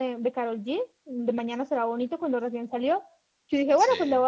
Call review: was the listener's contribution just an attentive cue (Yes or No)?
Yes